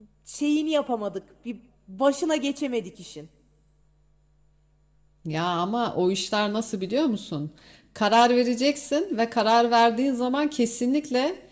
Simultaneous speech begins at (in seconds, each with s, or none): none